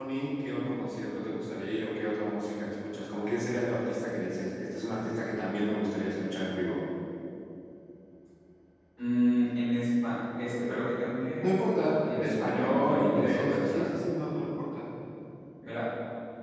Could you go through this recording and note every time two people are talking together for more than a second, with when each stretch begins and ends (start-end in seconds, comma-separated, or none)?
12.2-13.9